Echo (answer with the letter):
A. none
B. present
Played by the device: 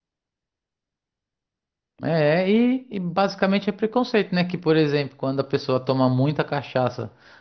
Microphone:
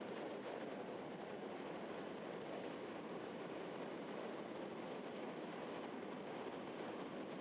A